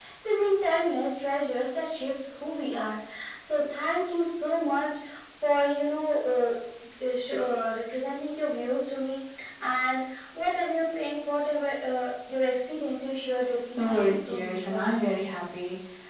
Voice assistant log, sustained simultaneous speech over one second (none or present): present